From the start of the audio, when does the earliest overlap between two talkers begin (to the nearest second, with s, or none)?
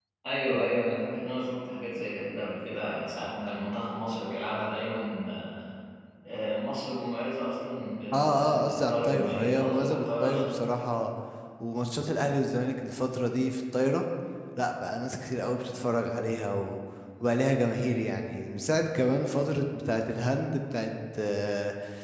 8 s